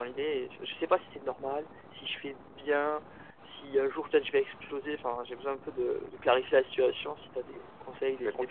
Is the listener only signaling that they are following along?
No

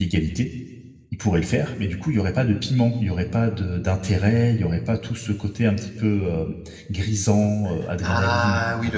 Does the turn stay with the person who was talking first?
No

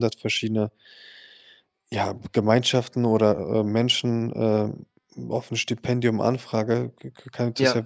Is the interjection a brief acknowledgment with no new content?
Yes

